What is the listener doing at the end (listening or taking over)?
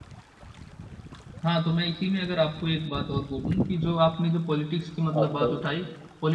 listening